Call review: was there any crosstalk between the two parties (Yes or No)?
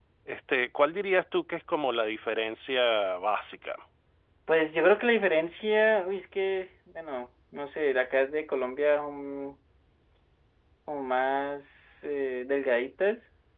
No